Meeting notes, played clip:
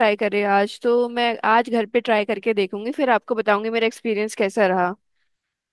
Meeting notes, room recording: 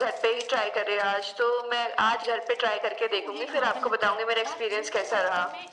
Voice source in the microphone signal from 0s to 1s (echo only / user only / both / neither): echo only